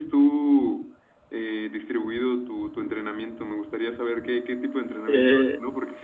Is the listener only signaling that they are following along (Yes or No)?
Yes